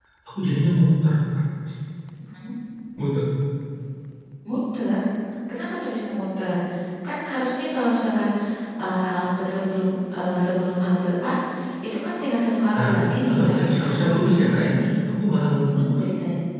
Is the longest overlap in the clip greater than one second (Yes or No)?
Yes